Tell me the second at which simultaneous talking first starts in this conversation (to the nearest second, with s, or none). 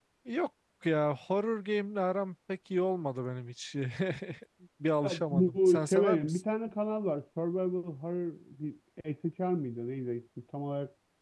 5 s